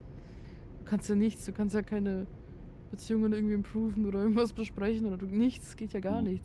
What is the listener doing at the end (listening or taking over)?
taking over